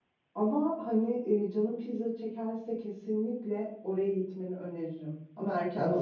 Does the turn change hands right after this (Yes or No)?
Yes